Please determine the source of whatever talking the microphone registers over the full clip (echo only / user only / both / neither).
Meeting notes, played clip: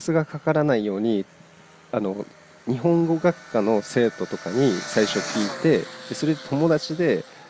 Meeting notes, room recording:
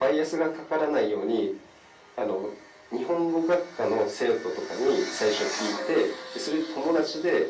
echo only